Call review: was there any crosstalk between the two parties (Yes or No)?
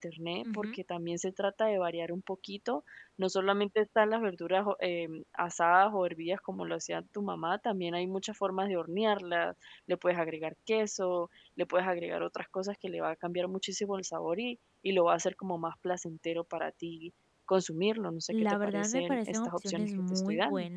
Yes